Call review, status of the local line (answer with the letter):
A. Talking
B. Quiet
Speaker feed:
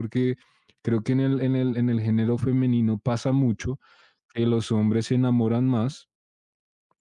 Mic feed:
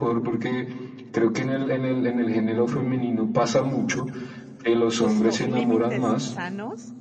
A